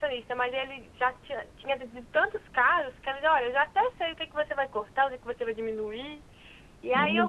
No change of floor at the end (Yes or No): Yes